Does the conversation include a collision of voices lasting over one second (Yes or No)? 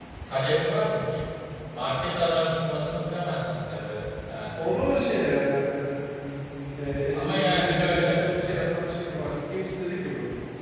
Yes